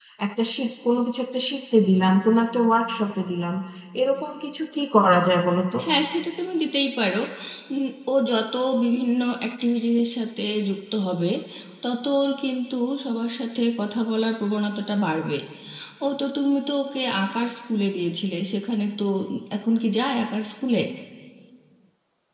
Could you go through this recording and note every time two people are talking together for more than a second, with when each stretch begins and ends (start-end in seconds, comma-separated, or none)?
none